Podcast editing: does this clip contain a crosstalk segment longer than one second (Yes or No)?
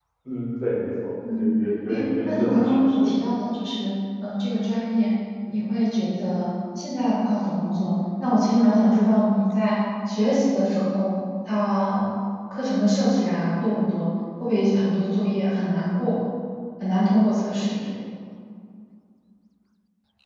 Yes